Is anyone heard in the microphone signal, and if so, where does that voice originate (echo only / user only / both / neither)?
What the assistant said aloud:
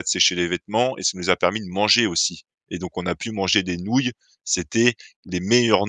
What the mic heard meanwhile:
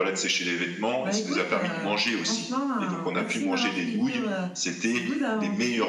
both